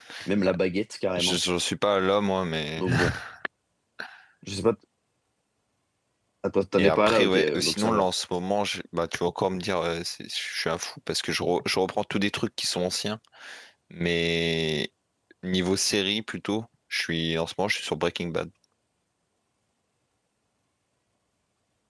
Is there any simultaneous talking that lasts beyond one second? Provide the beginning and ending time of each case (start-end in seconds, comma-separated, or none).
6.8-8.1